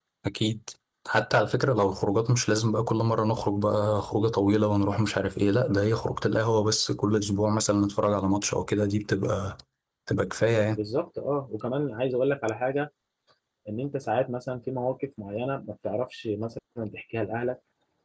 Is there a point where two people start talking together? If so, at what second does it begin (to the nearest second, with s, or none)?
none